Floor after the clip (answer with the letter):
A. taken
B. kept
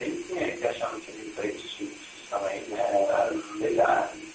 B